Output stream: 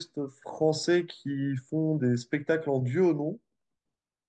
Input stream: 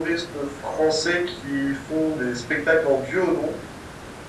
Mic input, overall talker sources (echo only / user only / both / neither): echo only